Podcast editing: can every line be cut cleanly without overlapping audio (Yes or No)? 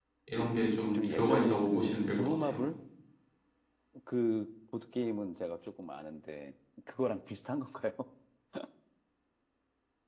No